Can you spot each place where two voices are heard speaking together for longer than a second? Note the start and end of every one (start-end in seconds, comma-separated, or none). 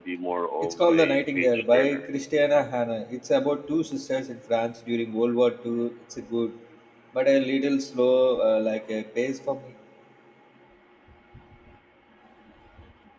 0.6-2.0